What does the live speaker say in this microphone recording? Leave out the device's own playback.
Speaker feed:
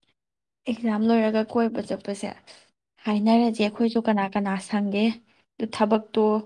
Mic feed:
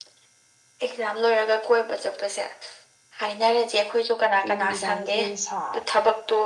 ꯑꯗꯨ ꯅꯨꯃꯤꯗꯥꯡꯁꯤꯅ ꯍꯦꯟꯅ ꯁꯥꯔꯦ

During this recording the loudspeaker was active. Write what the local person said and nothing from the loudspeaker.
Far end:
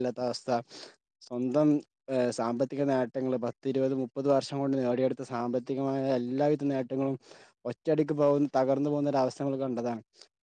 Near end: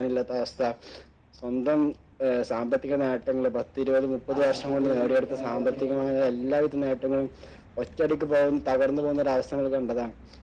ആശുപത്രികളിലേക്ക് എത്തിക്കാ എന്നുള്ള ഒരു

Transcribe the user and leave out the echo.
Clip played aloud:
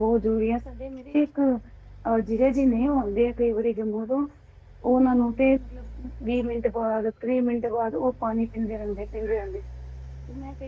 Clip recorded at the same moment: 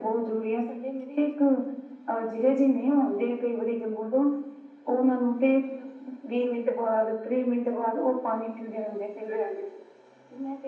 none

